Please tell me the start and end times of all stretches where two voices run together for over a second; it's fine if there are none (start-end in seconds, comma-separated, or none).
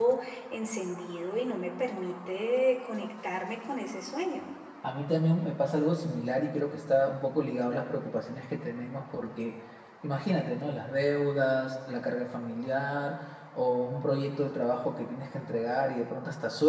none